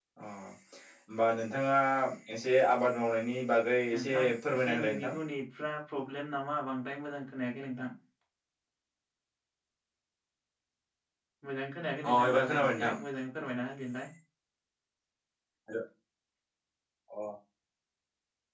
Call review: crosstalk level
present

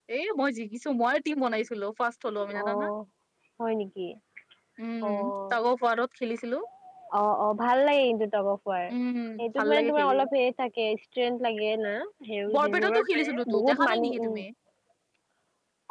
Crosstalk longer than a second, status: present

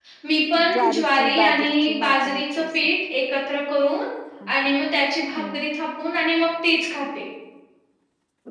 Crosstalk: present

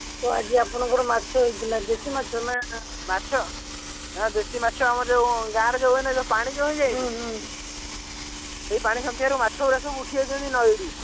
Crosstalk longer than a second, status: none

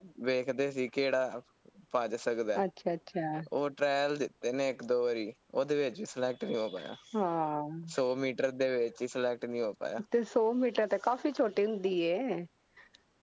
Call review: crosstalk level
none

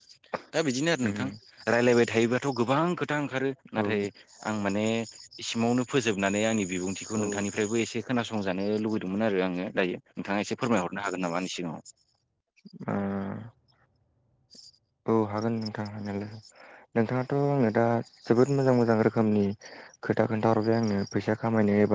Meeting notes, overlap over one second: none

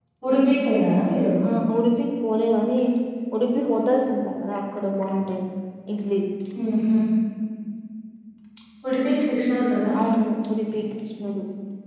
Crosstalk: none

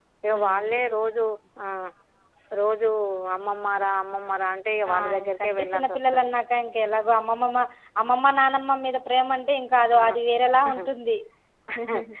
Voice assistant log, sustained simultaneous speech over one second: present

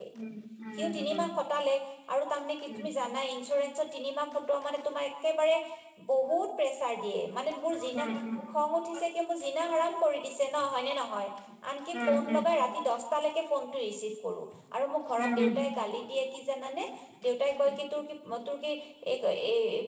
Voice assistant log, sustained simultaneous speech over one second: none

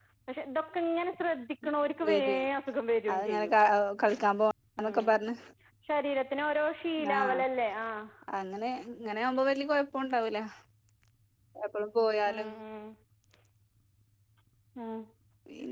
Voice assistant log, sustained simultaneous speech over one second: none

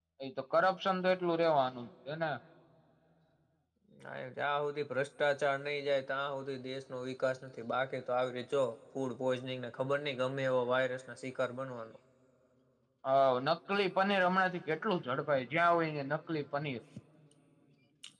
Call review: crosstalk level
none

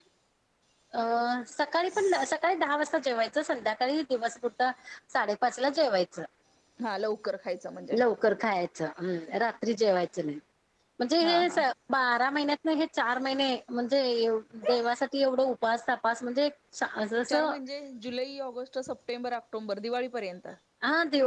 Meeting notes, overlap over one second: none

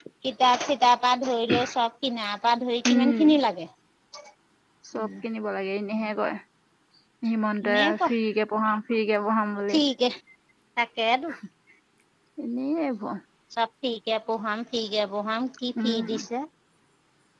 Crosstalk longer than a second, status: none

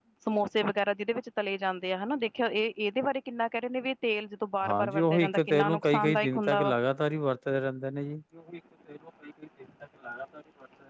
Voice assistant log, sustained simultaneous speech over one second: present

